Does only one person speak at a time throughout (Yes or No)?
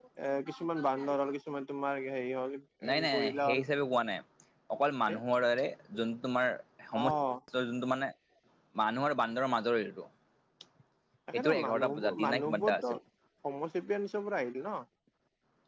No